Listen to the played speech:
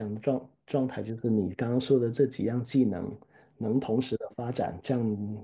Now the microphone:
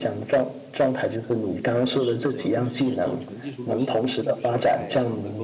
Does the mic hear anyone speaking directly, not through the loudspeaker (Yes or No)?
Yes